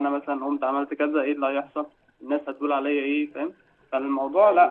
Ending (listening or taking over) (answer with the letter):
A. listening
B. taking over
B